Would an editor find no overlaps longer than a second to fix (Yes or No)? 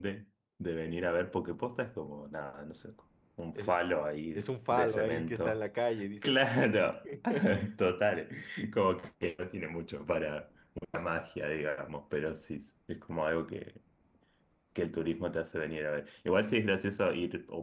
No